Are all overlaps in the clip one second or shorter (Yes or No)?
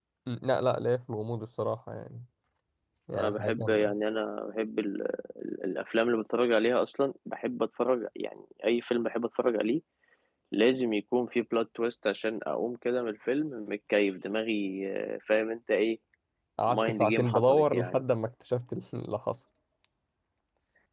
No